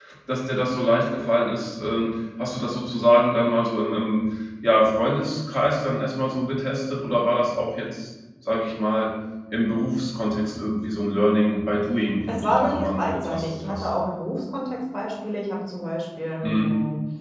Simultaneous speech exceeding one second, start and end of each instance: 12.3-13.9

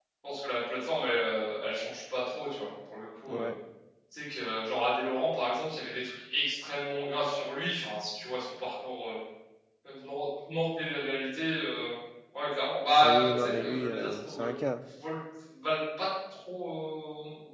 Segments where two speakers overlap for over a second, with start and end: 13.0-14.5

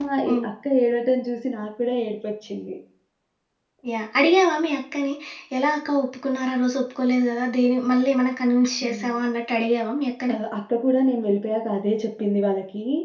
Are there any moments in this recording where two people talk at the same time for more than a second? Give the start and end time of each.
none

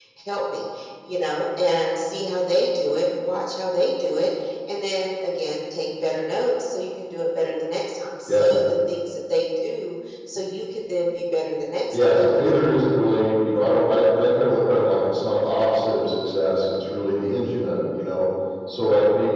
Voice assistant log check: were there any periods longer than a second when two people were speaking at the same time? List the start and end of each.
none

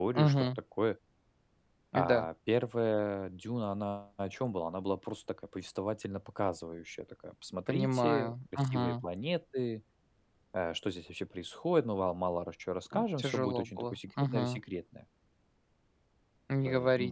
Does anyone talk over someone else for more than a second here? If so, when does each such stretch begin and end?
7.7-9.0, 13.2-14.6

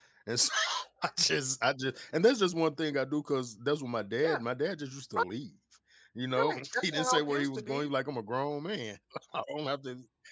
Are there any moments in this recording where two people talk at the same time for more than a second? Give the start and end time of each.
6.4-7.9

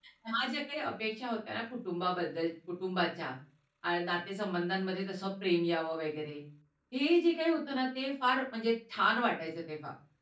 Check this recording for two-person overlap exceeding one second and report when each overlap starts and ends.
none

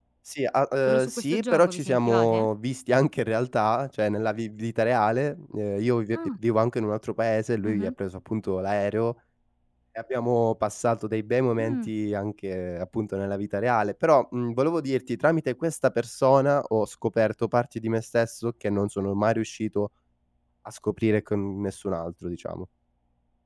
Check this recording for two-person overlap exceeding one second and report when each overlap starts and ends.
0.9-2.5

